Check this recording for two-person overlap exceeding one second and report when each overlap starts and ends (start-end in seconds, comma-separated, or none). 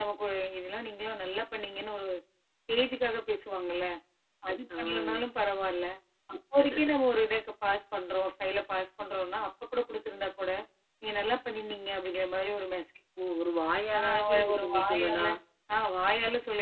14.0-15.3